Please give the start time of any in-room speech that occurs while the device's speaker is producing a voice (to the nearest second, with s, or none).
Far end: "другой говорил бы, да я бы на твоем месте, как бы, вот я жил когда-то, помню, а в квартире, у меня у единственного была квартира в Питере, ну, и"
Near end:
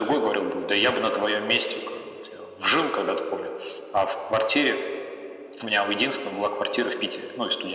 none